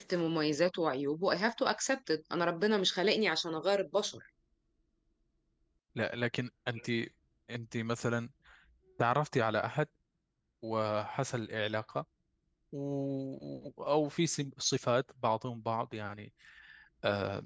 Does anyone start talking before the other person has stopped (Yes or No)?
No